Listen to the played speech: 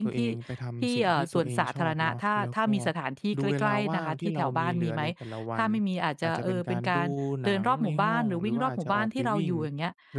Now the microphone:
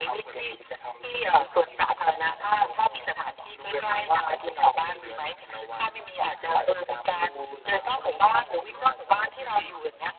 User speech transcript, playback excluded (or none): none